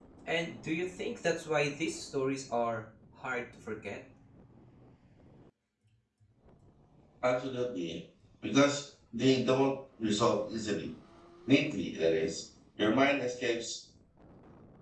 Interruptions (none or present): none